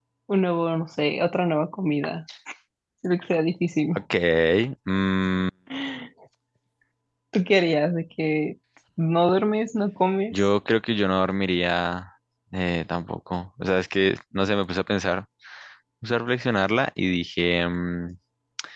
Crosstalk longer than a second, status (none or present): none